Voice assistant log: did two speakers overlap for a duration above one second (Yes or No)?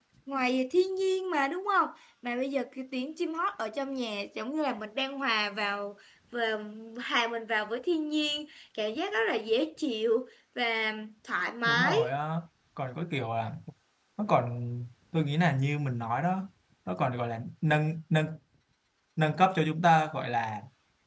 No